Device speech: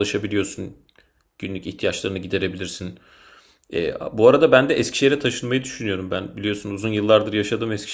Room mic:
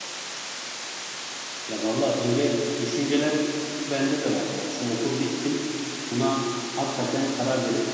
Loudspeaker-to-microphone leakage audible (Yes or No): No